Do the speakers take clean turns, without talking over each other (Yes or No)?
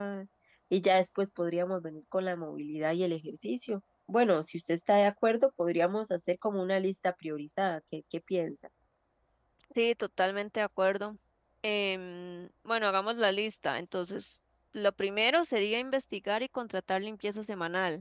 Yes